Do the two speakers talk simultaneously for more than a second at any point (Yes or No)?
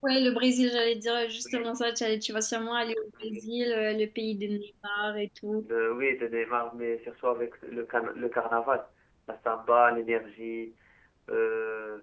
No